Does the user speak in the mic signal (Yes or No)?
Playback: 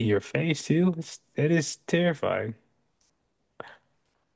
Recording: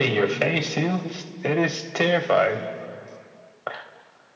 No